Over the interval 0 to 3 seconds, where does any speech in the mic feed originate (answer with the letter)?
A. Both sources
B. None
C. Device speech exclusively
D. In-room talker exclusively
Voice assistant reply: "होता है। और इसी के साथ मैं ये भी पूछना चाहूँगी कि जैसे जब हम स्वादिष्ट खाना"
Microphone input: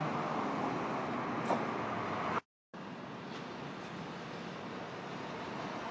B